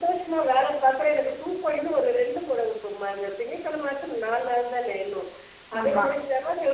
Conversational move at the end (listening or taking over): listening